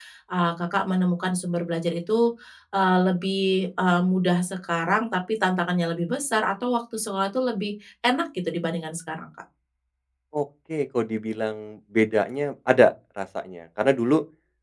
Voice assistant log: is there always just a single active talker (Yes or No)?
Yes